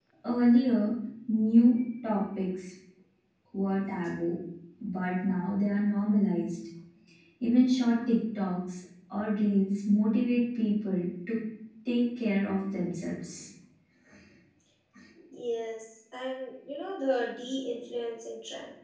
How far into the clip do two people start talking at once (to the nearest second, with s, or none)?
none